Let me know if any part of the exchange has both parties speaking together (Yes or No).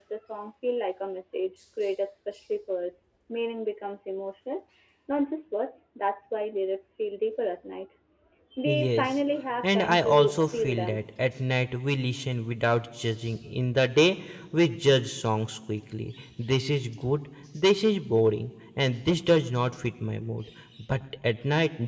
Yes